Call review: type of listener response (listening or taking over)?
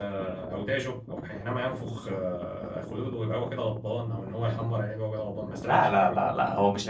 taking over